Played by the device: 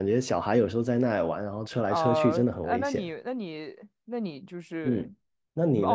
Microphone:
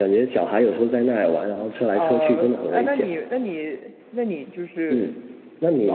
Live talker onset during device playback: none

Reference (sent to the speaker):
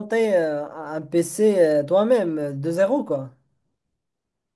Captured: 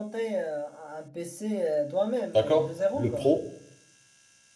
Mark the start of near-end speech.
2.3 s

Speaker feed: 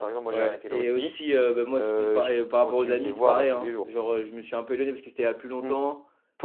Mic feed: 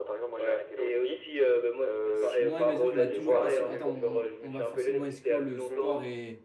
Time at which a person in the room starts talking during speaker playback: 2.1 s

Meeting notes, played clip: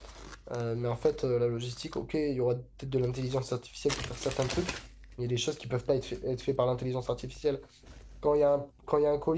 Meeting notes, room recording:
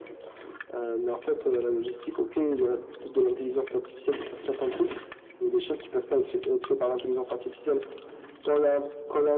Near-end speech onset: none

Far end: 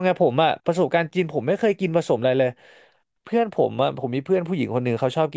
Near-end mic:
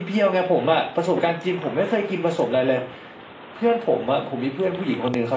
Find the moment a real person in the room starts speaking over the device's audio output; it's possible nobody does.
none

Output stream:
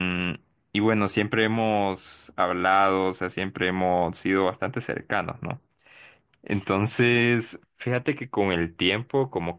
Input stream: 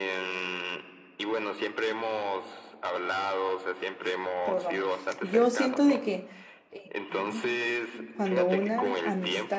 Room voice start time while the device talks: 4.4 s

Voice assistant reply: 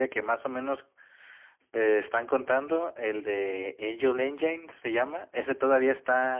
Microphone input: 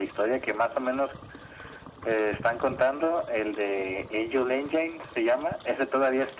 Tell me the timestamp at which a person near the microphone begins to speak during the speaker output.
none

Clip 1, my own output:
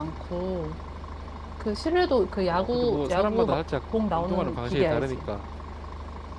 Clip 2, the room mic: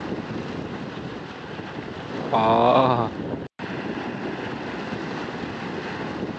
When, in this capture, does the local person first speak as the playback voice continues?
2.3 s

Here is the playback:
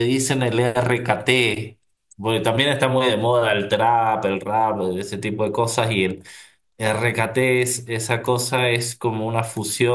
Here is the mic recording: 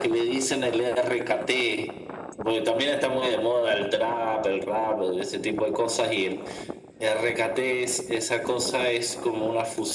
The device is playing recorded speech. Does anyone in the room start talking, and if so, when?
none

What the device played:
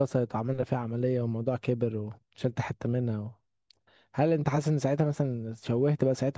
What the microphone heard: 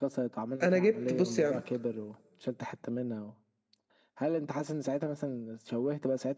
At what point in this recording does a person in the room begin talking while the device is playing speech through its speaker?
0.6 s

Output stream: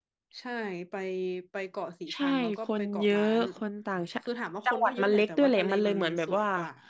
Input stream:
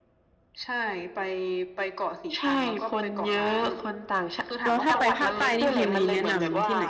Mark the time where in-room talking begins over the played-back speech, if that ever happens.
4.6 s

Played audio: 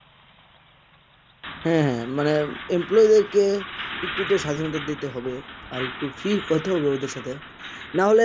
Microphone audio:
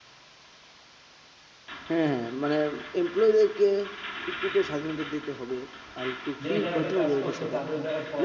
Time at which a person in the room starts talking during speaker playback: 6.4 s

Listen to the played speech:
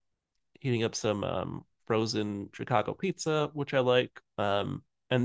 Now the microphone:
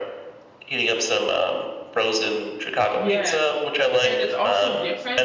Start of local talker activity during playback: 2.9 s

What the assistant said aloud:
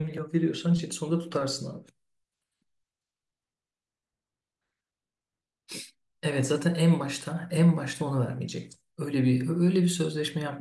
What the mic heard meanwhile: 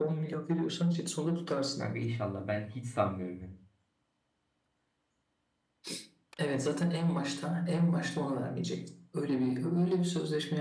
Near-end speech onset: 1.8 s

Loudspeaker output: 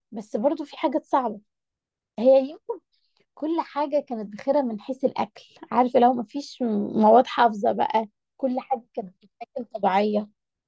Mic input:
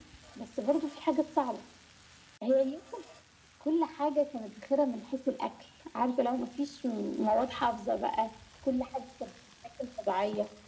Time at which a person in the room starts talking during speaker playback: none

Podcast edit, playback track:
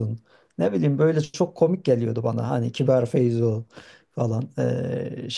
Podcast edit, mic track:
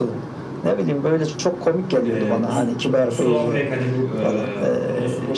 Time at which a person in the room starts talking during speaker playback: 2.0 s

